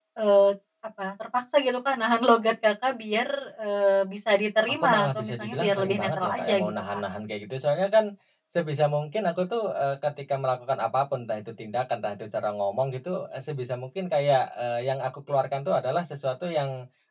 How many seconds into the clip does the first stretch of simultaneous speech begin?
4.8 s

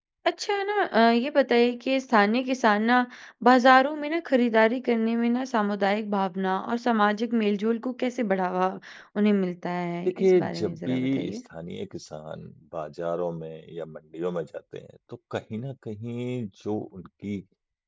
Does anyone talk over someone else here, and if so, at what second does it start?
10.1 s

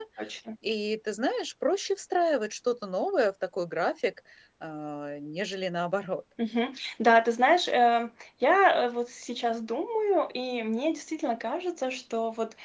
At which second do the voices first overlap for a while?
none

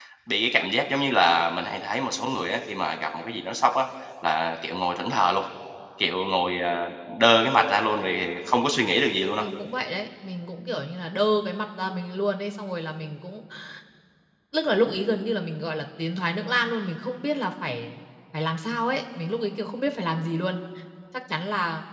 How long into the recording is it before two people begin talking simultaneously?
none

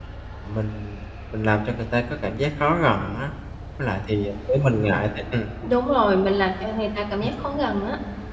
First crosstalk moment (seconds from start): none

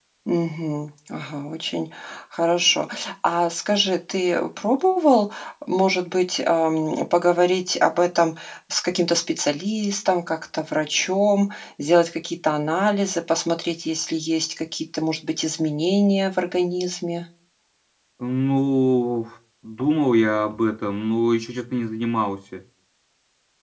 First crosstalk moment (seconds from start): none

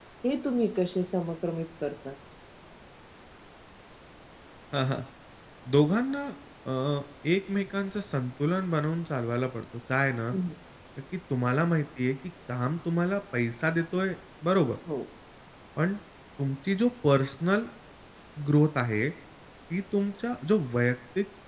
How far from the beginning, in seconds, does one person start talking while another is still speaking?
none

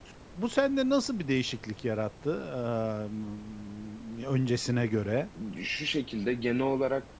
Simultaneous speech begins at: none

